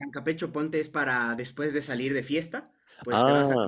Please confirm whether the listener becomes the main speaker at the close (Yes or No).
No